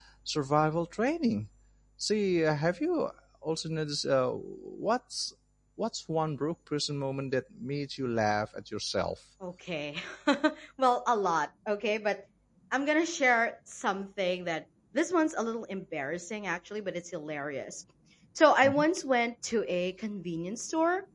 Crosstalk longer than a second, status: none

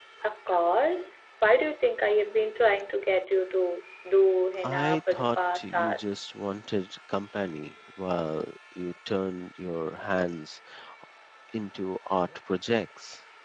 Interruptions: present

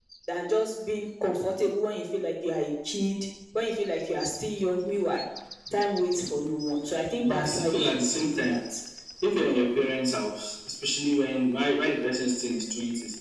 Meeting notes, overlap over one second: present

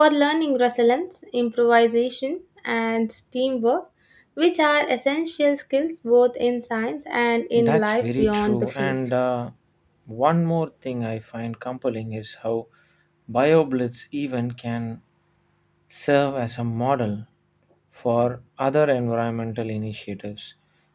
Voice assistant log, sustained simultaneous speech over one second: present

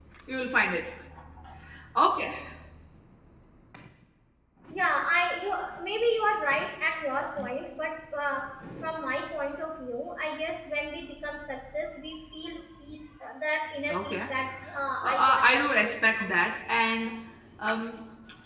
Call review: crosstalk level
present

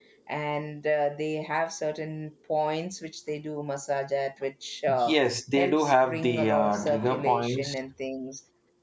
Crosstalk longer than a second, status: present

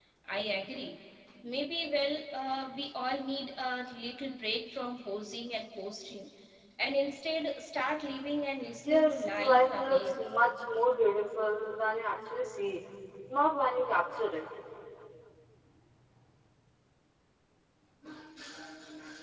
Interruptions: present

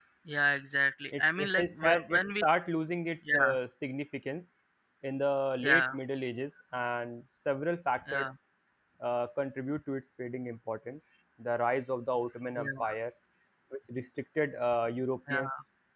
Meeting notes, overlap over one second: present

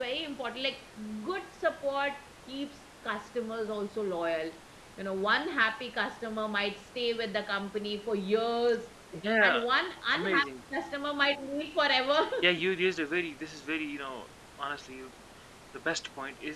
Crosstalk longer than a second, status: none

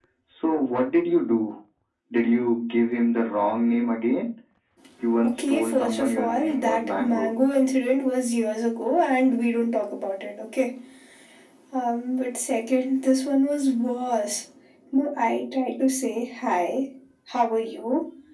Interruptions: present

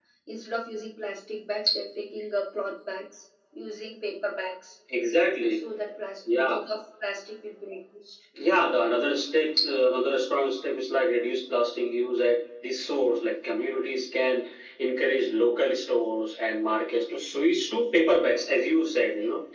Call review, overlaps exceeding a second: none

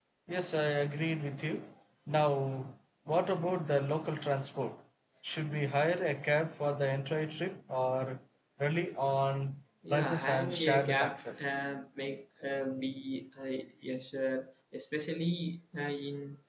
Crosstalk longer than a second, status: present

